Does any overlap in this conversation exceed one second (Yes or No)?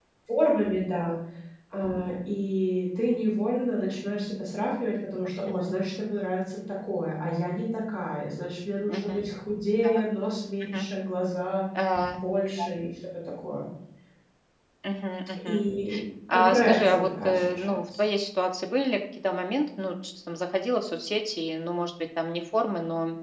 Yes